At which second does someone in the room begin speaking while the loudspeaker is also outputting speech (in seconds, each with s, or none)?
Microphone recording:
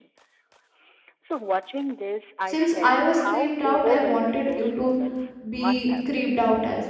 2.4 s